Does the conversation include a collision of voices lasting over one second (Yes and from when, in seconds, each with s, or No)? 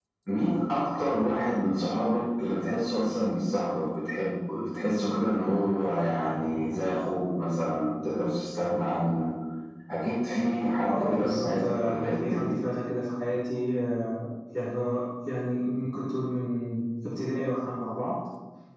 Yes, from 10.9 s